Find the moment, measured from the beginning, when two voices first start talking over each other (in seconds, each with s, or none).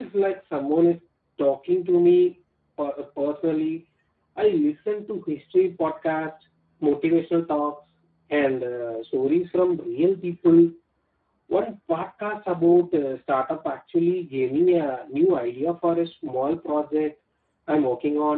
none